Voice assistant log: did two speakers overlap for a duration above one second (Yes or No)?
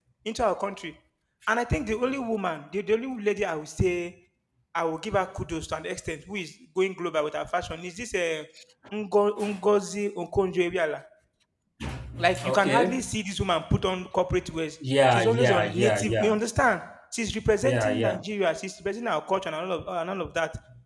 Yes